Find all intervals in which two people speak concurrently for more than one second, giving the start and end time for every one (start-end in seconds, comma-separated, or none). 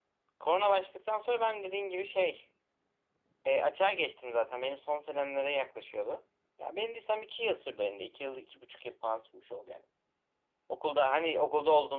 none